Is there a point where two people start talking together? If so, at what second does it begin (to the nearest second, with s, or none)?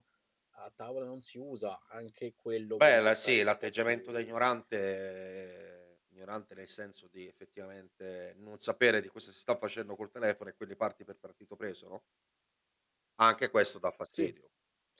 3 s